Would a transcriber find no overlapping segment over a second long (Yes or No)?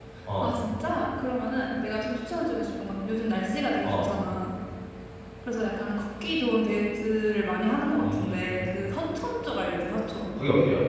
Yes